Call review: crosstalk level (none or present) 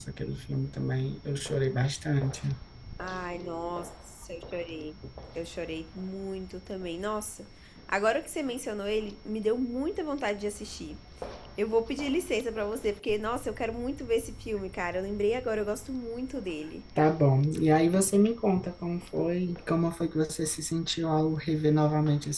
none